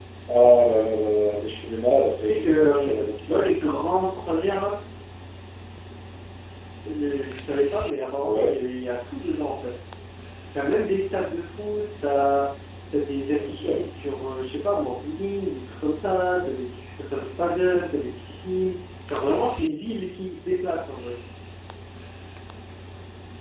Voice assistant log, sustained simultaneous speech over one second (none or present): present